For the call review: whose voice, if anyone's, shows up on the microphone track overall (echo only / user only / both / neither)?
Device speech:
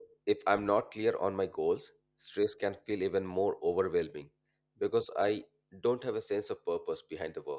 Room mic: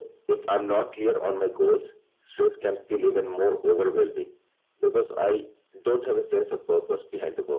echo only